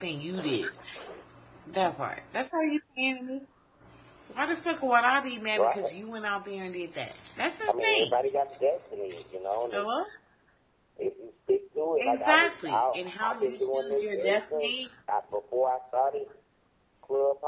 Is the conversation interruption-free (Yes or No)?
No